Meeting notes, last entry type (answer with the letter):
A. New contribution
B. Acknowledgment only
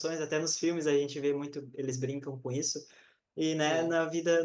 B